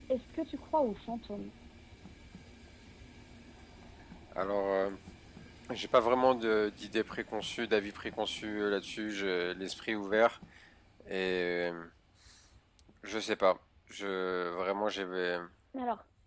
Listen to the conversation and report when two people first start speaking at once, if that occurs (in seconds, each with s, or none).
none